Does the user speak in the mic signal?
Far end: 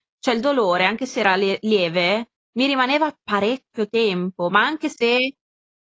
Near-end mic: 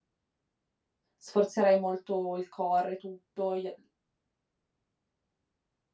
Yes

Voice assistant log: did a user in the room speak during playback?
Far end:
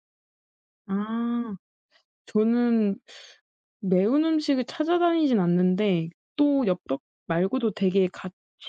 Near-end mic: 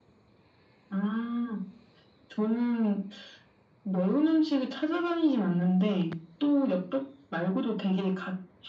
No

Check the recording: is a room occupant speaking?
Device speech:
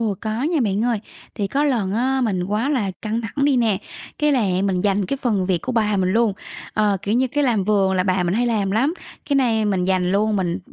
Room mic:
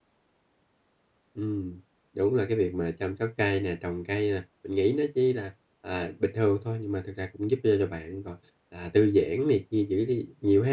Yes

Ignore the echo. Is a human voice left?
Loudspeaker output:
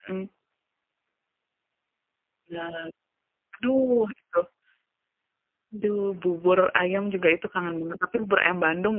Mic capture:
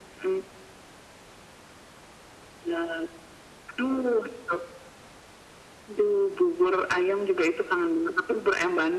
No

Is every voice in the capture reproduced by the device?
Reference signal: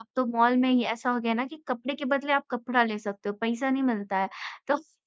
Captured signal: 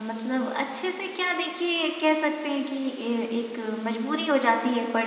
No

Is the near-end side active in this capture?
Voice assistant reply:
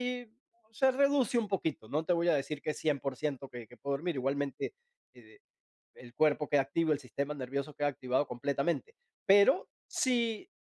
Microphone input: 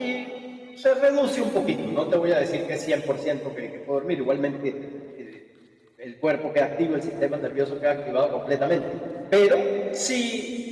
No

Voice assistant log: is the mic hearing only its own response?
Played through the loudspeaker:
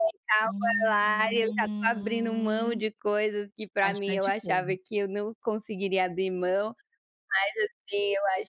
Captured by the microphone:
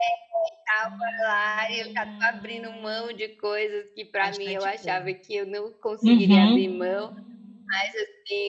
No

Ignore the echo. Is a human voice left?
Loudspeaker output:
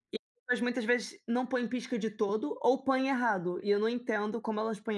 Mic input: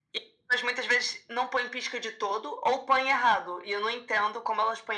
No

